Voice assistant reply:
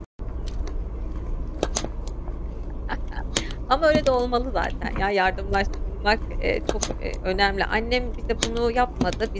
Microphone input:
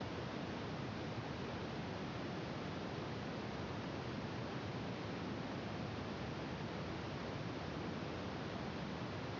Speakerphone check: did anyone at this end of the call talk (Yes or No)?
No